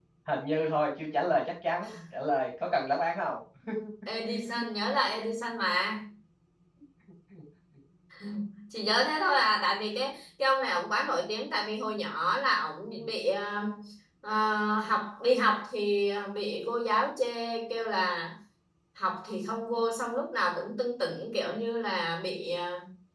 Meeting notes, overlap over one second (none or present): none